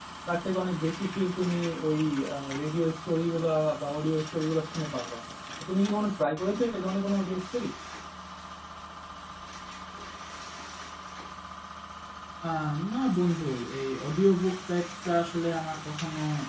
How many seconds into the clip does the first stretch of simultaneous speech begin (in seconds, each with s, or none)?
none